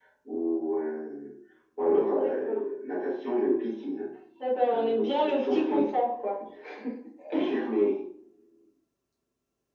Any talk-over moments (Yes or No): Yes